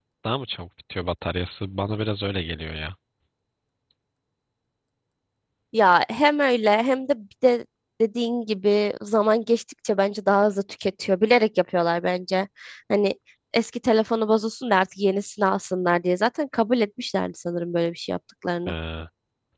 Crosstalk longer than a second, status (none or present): none